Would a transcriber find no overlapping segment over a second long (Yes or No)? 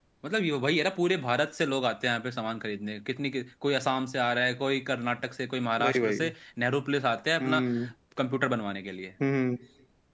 Yes